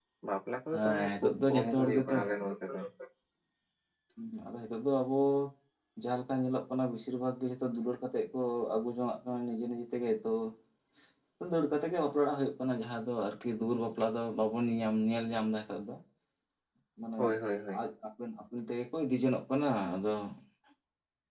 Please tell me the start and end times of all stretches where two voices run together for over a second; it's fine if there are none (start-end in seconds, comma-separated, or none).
0.7-2.1